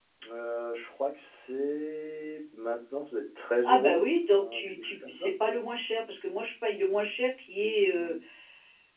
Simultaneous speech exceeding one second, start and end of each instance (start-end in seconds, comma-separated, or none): 3.6-5.3